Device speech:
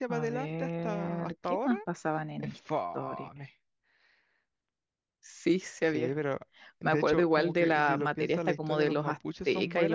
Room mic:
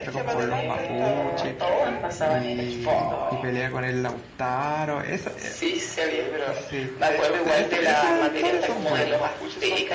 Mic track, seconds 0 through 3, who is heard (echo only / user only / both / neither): both